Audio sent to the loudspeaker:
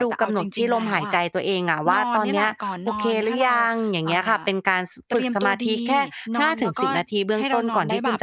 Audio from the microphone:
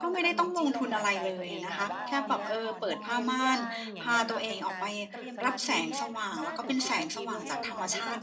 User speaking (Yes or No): Yes